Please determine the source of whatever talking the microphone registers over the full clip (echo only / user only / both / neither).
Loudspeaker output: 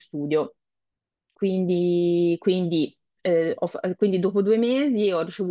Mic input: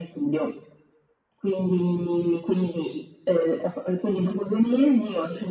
echo only